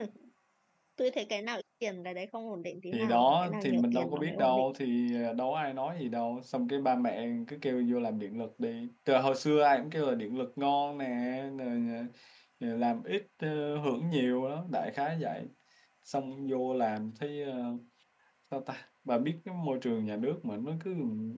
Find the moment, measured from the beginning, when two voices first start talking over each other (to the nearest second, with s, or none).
3 s